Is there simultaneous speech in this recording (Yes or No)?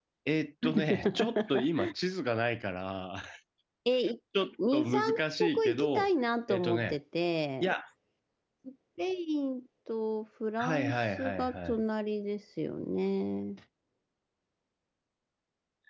Yes